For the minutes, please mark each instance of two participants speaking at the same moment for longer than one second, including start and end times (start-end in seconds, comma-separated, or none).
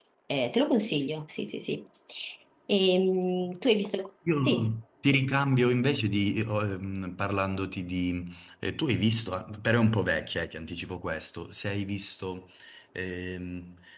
none